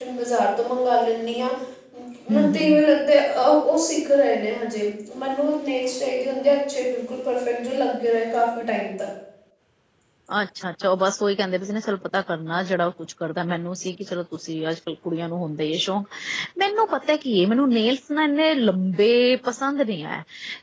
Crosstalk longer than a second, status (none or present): none